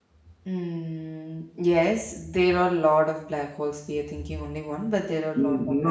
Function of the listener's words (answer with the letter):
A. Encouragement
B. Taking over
B